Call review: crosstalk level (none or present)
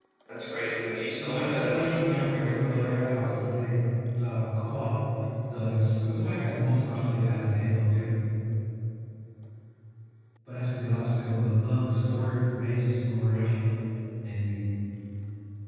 present